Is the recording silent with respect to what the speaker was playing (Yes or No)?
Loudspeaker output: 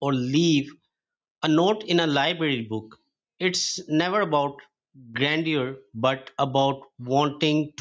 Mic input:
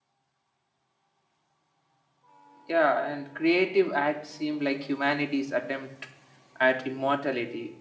Yes